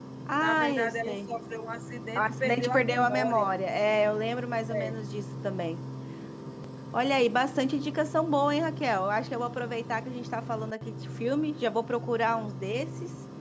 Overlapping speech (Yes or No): Yes